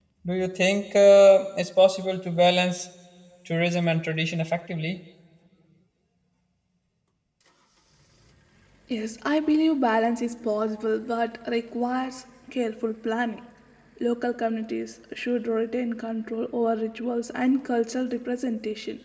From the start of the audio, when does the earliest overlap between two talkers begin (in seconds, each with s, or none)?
none